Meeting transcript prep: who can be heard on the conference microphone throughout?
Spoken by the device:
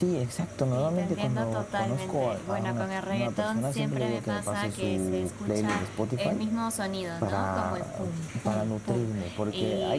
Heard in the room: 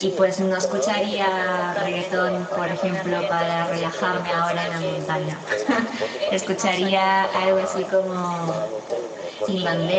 both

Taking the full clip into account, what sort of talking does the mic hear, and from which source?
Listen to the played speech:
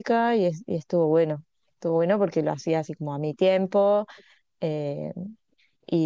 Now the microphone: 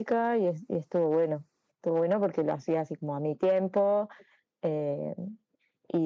echo only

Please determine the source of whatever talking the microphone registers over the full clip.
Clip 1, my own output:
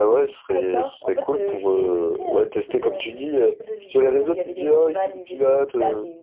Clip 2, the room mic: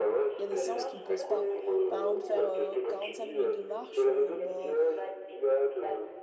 both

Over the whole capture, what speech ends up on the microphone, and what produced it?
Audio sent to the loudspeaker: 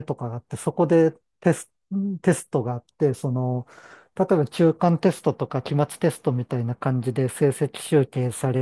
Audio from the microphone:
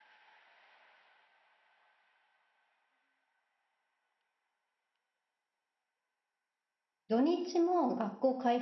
user only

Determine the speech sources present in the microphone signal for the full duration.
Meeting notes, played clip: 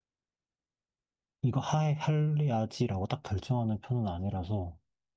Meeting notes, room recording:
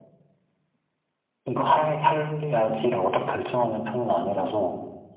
echo only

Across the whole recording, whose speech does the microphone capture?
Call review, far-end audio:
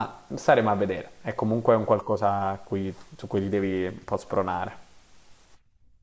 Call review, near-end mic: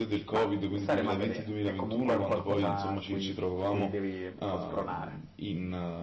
both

